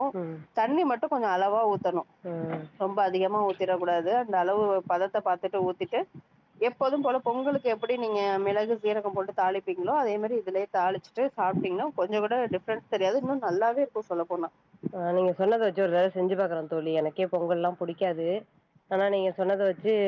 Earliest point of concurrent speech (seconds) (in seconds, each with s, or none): none